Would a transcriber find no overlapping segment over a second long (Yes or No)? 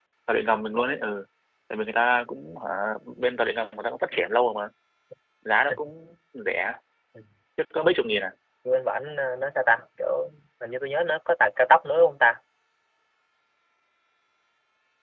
Yes